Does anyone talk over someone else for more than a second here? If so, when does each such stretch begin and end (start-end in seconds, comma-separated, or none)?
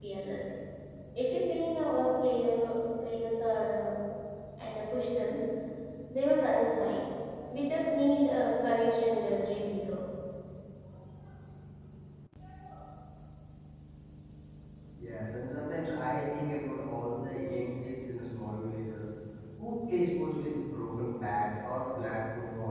none